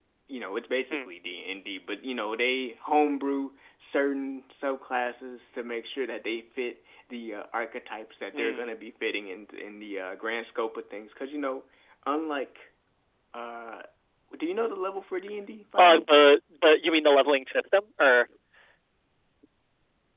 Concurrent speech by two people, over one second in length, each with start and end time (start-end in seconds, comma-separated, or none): none